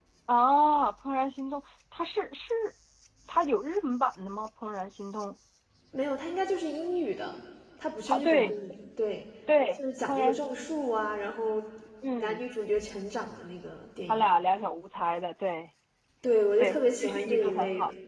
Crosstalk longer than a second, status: present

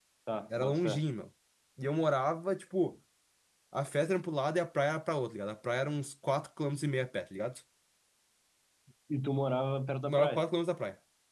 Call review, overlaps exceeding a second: none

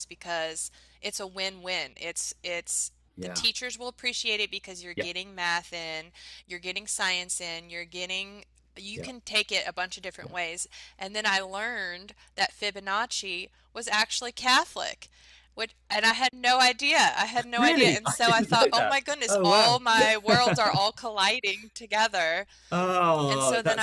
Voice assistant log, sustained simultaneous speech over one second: present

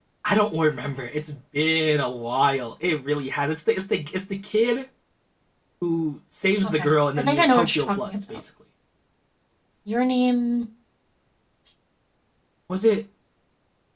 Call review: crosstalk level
present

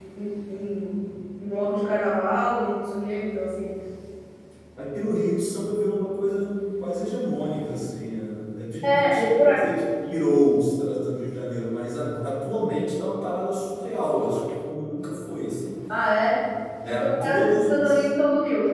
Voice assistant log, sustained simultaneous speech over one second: present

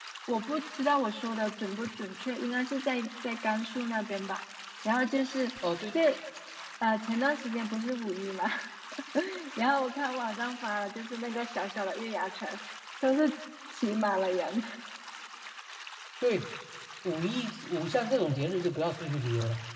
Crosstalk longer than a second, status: none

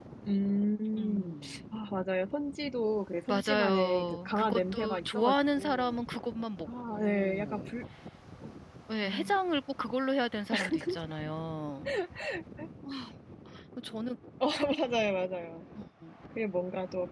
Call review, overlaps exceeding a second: present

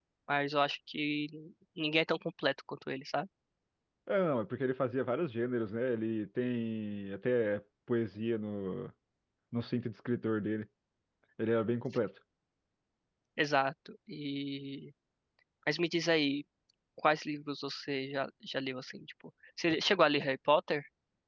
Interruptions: none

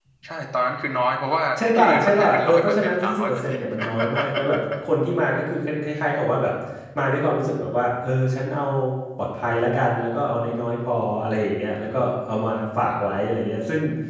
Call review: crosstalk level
present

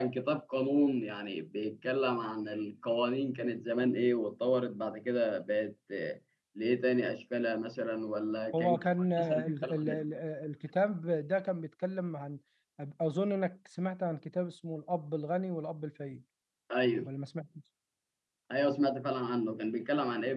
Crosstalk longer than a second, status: present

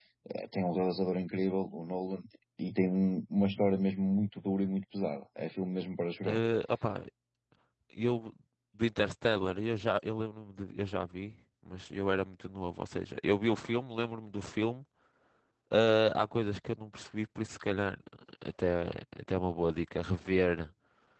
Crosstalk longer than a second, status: none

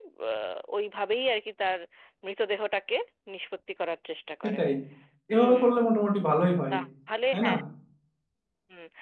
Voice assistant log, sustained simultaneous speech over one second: none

